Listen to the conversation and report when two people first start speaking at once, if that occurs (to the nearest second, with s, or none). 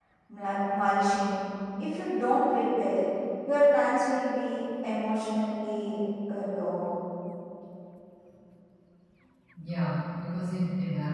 none